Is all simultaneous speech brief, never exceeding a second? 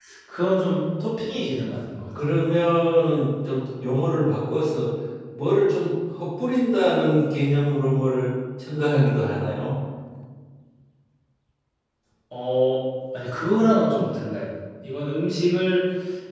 Yes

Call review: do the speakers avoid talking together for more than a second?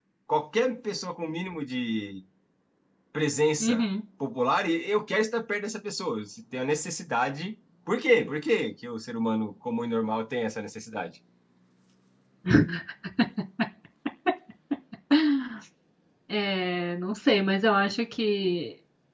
Yes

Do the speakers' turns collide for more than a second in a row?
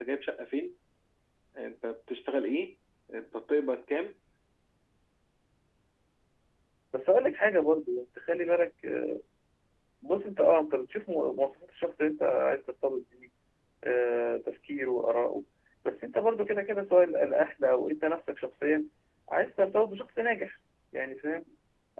No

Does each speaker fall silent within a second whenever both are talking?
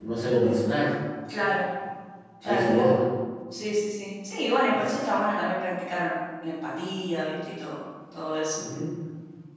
Yes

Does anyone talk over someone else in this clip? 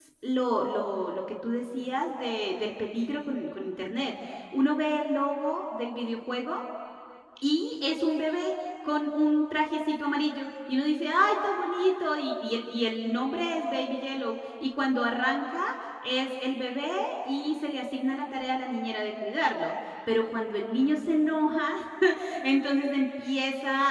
No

